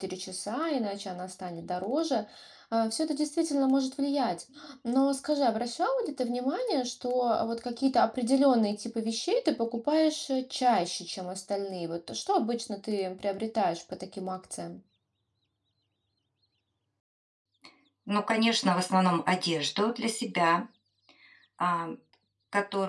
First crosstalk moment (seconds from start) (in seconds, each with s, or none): none